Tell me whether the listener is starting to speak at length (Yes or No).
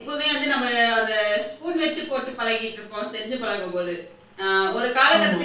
No